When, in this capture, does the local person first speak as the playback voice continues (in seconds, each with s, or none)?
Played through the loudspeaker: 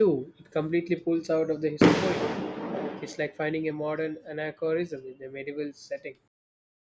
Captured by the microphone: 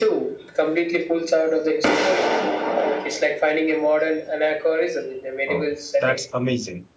5.5 s